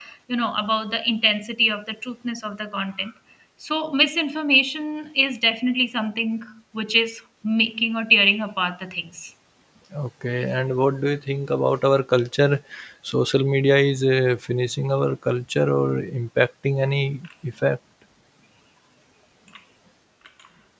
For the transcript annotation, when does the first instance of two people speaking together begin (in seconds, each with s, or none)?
none